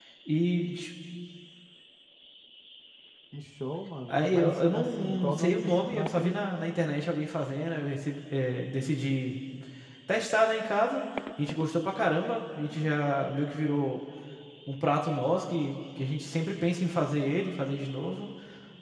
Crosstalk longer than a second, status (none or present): present